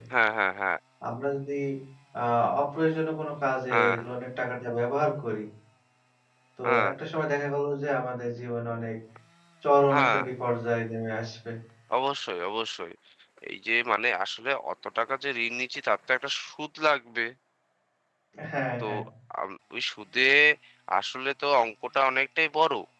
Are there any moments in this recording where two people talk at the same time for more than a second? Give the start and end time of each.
none

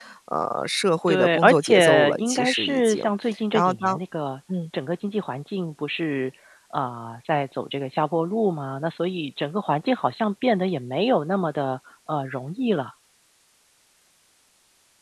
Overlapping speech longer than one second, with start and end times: 1.1-3.0

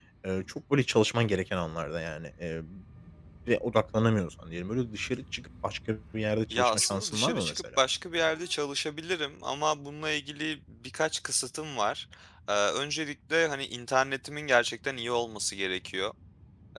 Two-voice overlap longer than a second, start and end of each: 6.5-7.8

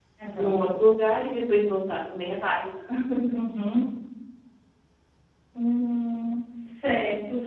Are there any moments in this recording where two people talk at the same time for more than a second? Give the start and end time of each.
none

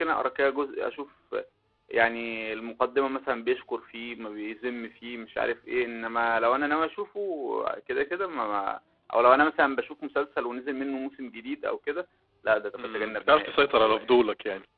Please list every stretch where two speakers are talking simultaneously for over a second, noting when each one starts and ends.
12.8-14.0

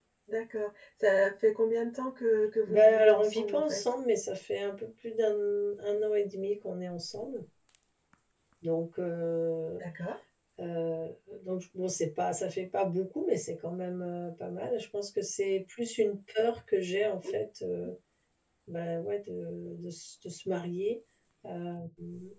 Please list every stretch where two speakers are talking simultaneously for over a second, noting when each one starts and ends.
2.7-3.9

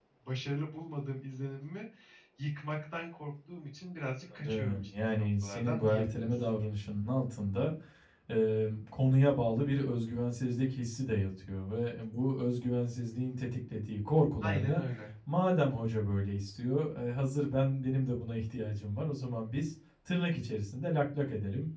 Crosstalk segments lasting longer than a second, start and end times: 4.4-6.3

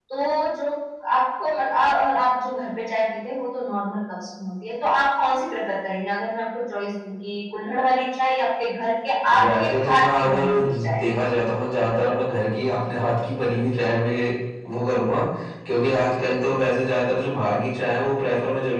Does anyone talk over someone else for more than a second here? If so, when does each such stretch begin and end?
9.4-11.0

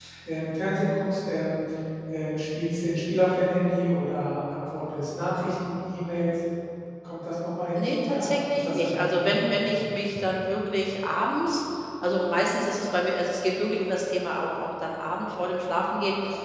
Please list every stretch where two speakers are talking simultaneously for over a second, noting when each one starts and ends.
7.8-9.8

